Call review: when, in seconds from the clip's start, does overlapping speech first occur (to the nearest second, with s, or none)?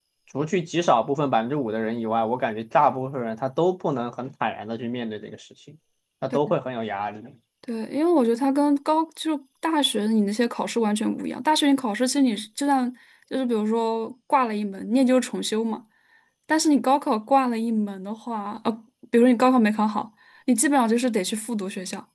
none